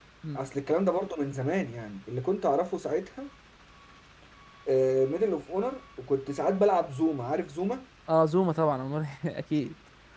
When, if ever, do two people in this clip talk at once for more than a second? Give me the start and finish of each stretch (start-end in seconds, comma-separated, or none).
none